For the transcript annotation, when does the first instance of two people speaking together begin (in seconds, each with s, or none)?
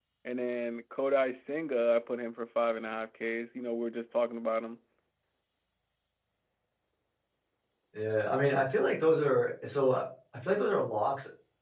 none